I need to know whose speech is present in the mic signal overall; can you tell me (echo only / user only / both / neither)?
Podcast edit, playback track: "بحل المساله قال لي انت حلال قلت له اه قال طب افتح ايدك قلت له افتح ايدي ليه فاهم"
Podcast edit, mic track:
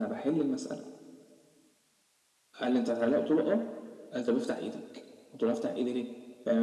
echo only